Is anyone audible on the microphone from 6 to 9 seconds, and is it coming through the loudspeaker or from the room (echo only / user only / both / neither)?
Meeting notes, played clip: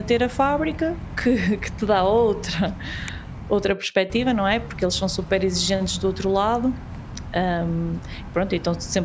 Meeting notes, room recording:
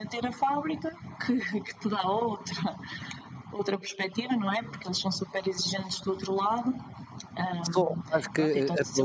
both